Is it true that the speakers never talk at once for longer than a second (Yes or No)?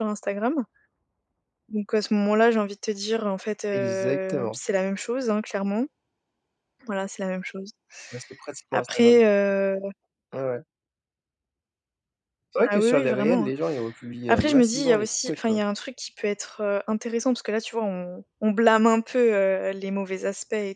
No